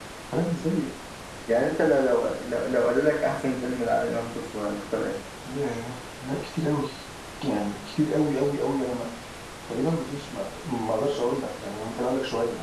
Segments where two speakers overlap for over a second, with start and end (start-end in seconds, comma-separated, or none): none